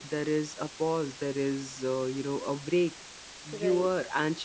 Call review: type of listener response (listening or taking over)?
listening